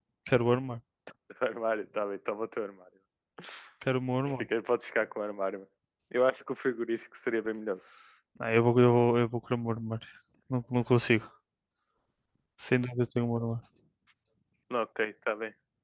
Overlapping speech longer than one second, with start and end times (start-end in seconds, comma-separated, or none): none